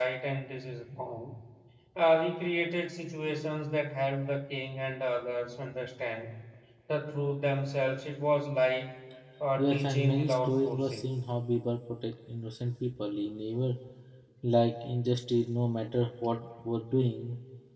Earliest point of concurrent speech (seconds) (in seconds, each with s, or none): 9.6 s